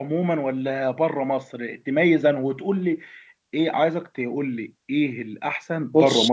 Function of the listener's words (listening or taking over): listening